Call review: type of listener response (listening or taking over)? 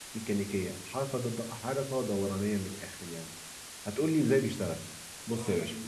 taking over